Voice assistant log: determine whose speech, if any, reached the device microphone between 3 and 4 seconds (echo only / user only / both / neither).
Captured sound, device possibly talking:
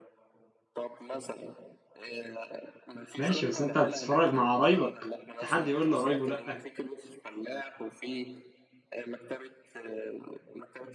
both